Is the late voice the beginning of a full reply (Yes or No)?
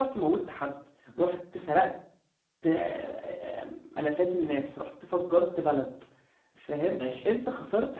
No